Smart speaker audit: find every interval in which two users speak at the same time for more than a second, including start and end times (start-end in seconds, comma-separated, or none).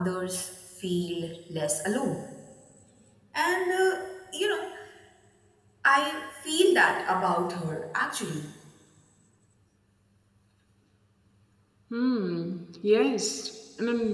none